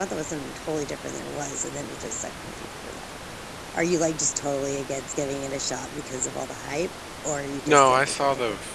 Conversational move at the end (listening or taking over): taking over